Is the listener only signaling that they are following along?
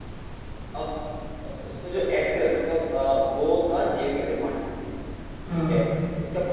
Yes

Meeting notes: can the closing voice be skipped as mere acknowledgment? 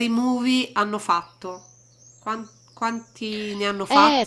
No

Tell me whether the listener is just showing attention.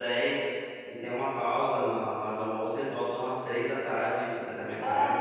No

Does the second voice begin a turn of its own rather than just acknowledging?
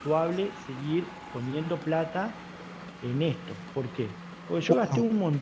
No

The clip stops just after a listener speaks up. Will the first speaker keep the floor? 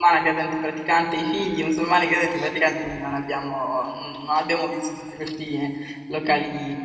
Yes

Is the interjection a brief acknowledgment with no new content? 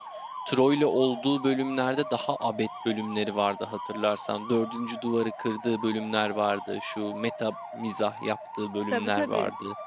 No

